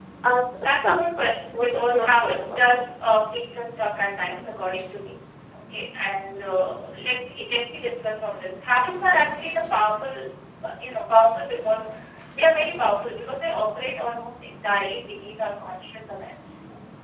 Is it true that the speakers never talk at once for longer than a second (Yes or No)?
No